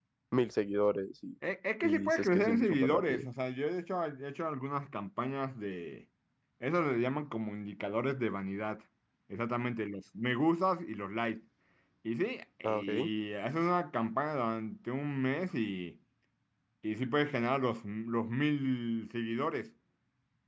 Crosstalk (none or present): present